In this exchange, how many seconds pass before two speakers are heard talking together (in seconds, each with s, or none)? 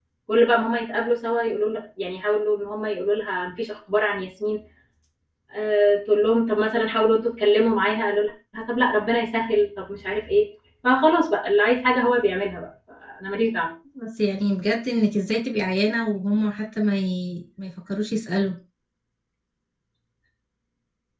none